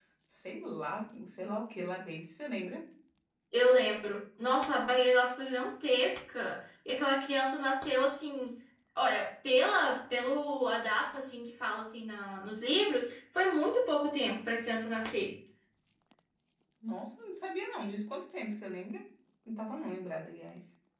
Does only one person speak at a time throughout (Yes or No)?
Yes